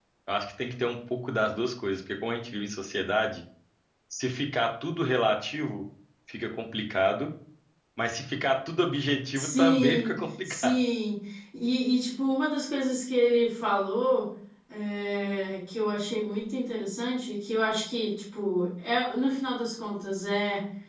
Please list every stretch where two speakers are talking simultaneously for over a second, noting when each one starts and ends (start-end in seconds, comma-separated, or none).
9.3-10.7